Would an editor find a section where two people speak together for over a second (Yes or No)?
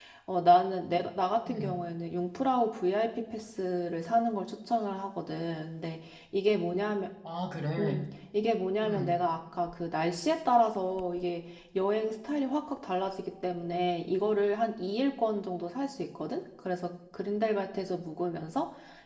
No